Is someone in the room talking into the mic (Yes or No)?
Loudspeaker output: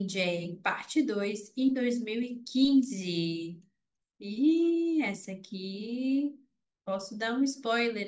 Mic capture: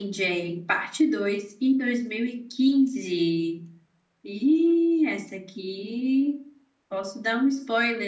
No